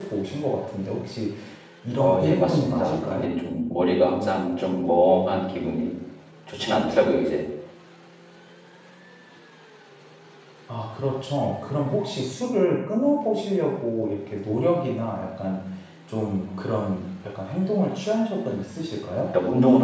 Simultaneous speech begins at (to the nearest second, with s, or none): 2 s